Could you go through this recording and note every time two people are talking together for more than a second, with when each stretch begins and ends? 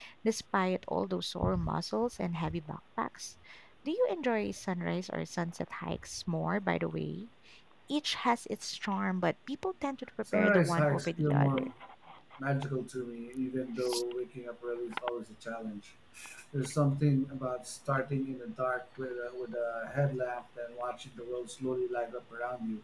10.3-11.7

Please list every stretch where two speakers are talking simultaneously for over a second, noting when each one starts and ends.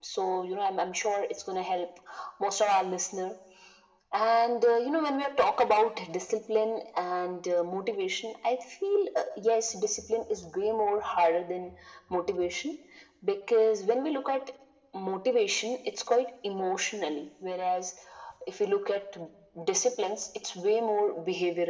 none

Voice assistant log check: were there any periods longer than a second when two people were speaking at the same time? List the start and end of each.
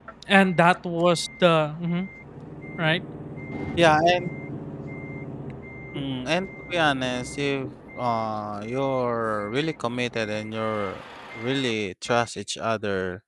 none

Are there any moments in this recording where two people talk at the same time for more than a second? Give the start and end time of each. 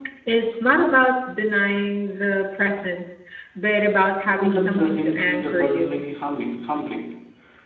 4.2-6.0

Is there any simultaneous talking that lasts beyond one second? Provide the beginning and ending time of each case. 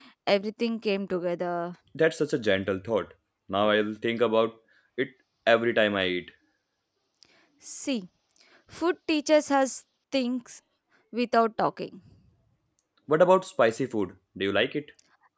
none

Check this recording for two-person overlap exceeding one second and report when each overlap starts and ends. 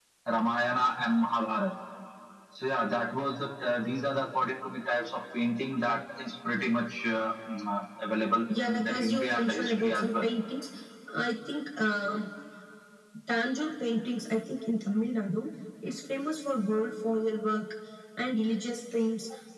8.6-10.3

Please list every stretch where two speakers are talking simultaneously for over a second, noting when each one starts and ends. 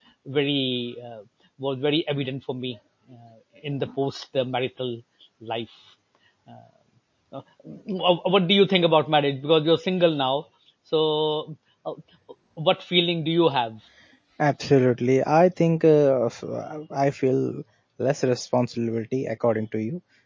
none

